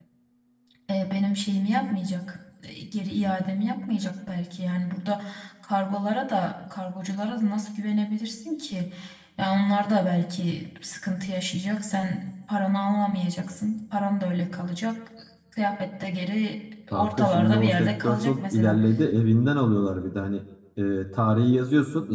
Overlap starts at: 16.9 s

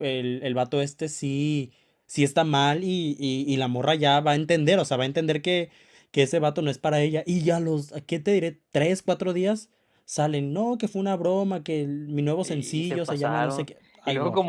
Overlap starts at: 12.4 s

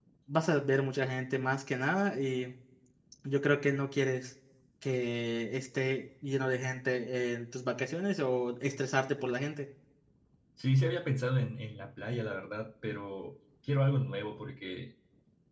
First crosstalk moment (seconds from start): none

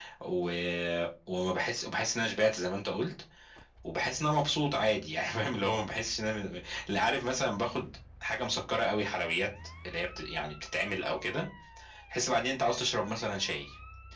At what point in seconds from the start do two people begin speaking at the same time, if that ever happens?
none

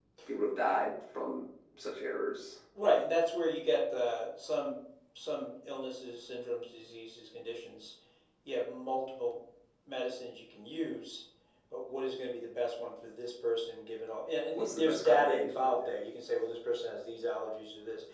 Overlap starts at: 14.5 s

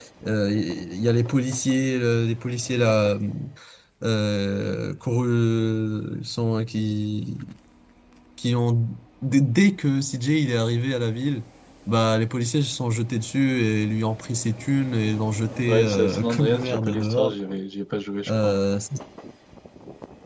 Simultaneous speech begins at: 15.7 s

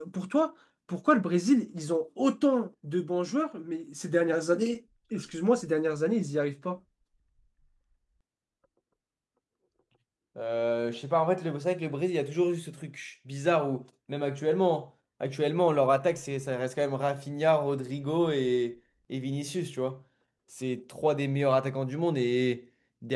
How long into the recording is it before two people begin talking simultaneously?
none

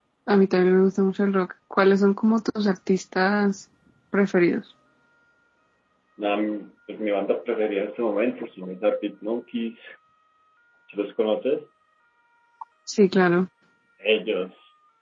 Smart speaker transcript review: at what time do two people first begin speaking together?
none

